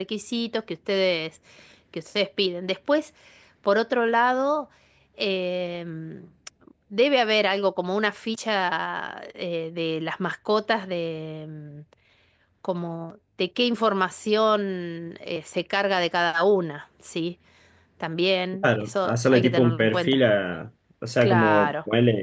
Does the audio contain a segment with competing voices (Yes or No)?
Yes